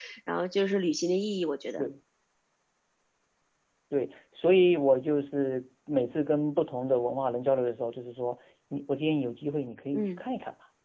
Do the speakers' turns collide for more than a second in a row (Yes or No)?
No